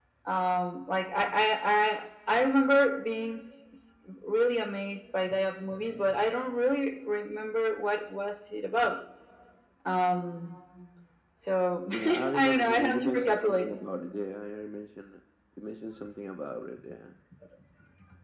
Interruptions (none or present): present